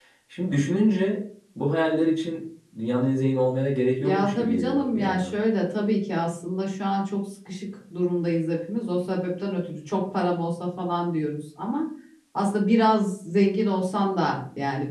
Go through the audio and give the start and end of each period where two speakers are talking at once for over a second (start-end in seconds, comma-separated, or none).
4.0-5.3